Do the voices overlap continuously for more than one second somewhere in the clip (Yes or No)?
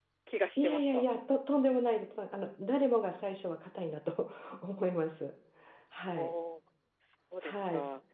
No